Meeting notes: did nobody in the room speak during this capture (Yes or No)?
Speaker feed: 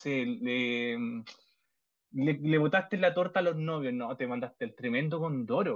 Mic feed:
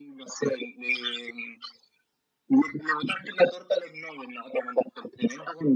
Yes